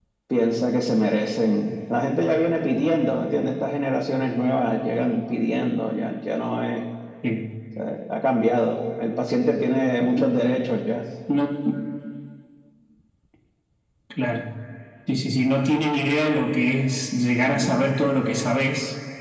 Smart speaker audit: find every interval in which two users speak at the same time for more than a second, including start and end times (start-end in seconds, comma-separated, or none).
none